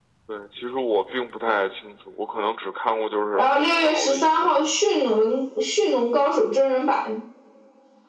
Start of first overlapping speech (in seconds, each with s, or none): 3.4 s